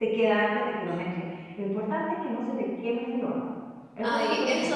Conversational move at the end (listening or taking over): taking over